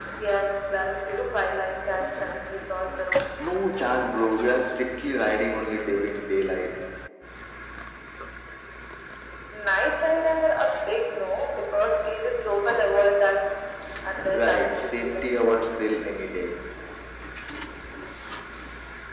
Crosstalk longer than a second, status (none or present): present